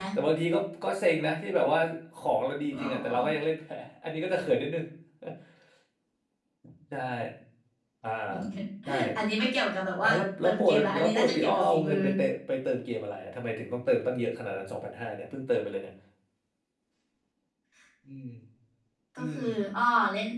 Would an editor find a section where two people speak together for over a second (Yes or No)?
Yes